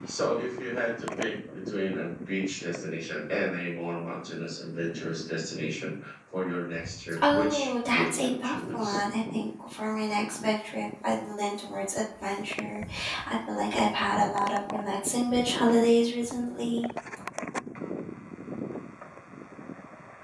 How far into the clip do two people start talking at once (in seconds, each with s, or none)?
7.2 s